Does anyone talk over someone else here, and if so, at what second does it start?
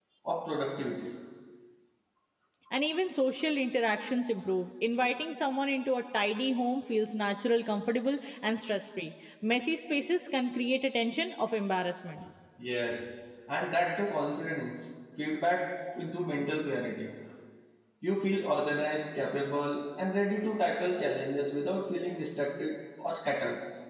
none

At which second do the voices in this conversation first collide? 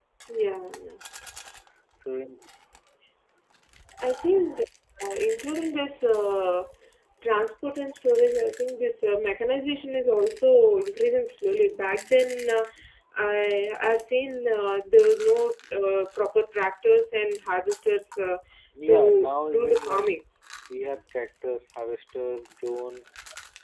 18.9 s

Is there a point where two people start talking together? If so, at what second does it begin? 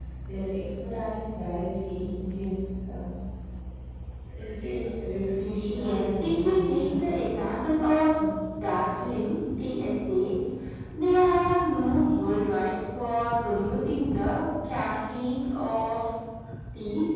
5.7 s

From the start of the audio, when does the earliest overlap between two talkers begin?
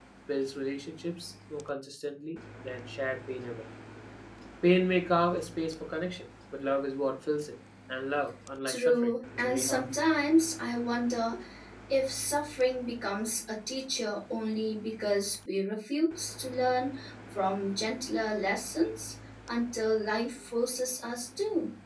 8.7 s

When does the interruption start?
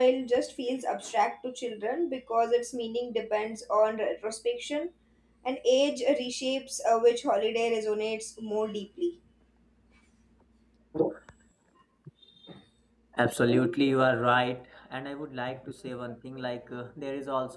none

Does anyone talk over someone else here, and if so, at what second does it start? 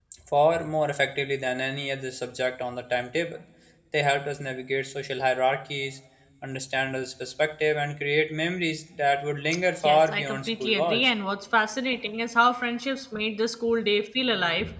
9.8 s

